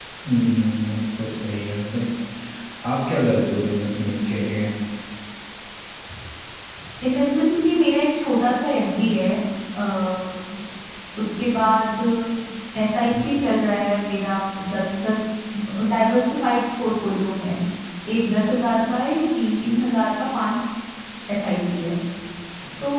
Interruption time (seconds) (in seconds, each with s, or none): none